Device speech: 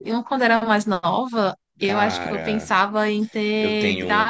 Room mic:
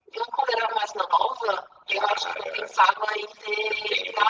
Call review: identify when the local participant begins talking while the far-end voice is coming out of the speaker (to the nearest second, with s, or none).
none